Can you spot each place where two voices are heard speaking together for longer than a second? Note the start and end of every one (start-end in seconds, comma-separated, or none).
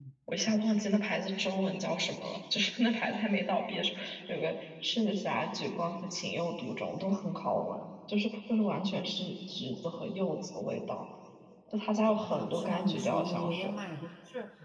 12.1-13.7